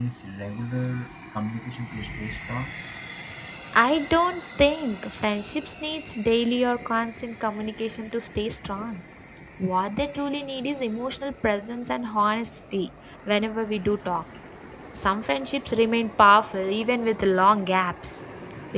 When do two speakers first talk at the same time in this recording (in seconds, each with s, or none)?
none